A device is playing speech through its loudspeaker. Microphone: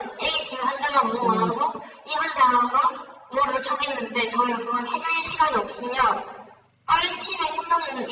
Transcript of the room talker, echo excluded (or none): 어,